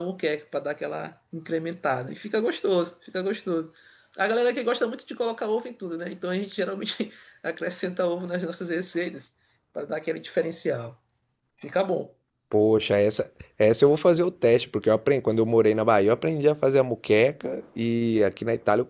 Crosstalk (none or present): none